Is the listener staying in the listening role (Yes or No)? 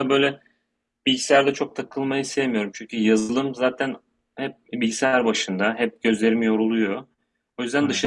Yes